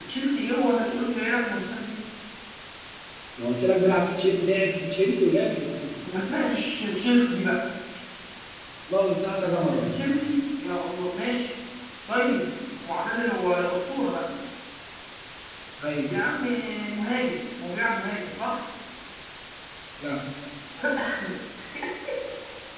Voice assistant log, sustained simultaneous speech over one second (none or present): none